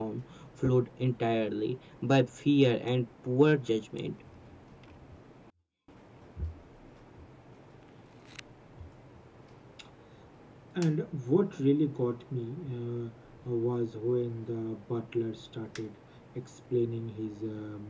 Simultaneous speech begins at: none

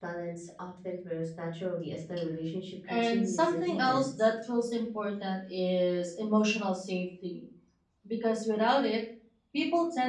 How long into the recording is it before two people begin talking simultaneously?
2.9 s

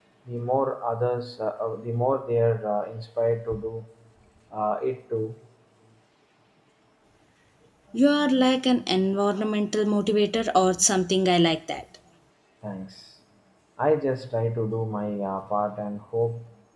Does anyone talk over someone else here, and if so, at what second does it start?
none

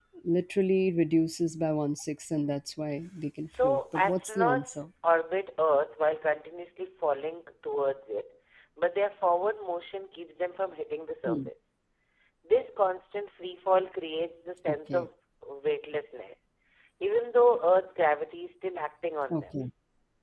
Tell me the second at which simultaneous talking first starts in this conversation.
3.4 s

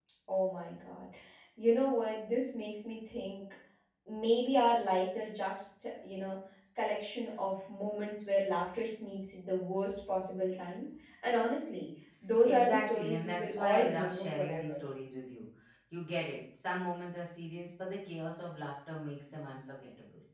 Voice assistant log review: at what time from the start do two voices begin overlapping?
12.4 s

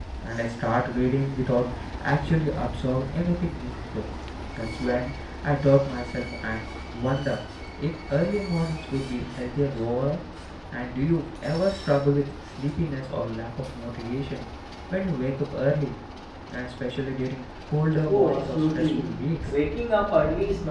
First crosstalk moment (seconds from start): 18.1 s

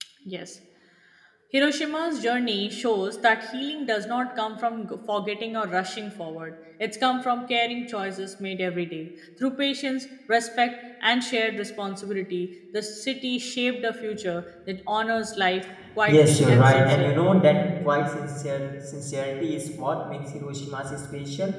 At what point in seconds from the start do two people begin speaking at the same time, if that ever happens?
16.0 s

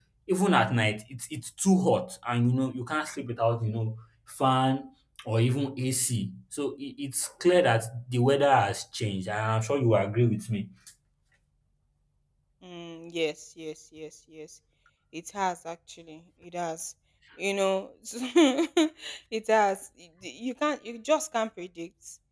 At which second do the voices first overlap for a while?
none

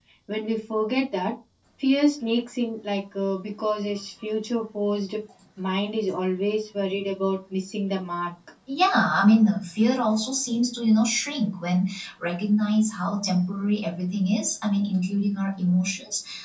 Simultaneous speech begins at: none

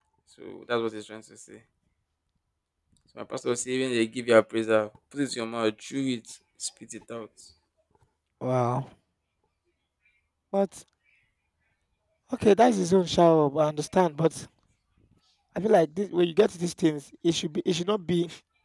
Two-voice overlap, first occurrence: none

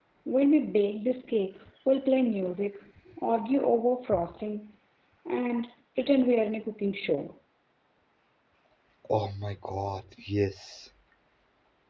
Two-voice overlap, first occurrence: none

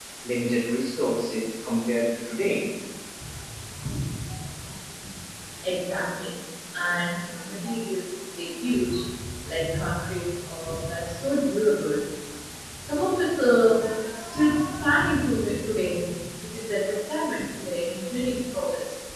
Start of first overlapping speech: none

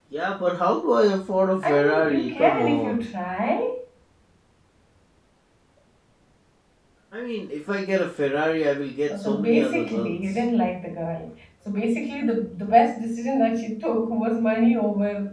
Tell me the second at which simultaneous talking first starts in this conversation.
1.6 s

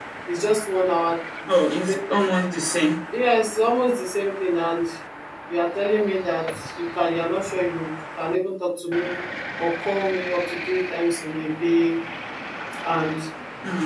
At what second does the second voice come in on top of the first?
none

